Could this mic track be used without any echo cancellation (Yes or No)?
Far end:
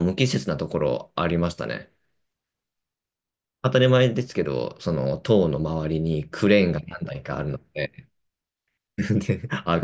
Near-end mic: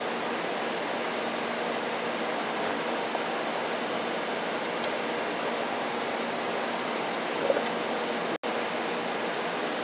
Yes